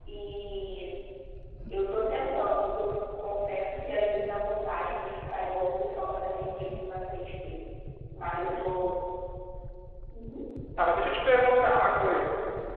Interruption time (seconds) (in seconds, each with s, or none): none